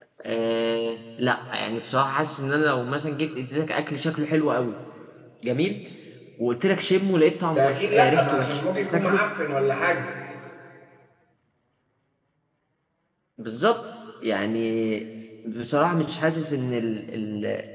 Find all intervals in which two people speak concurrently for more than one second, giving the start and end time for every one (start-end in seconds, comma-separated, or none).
7.5-9.2